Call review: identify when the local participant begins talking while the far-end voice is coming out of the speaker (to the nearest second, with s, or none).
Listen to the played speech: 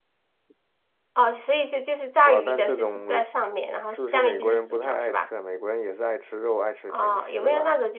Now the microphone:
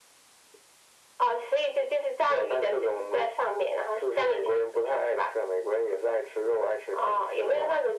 none